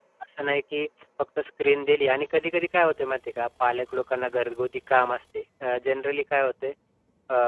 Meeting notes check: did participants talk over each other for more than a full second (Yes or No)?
No